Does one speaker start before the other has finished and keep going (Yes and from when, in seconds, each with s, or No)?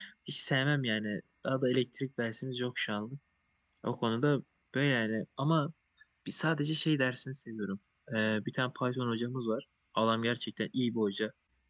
No